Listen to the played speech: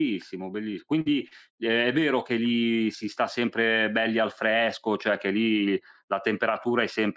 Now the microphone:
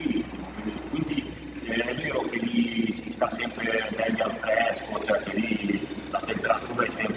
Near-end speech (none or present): none